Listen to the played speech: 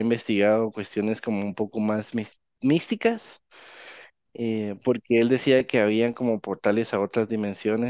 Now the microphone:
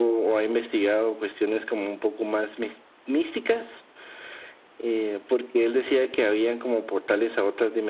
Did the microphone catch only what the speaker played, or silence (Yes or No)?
Yes